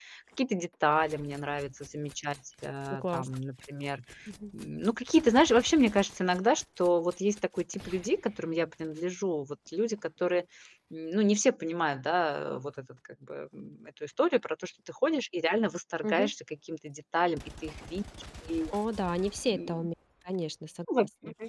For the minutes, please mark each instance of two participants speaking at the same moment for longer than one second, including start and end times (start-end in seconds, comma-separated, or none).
none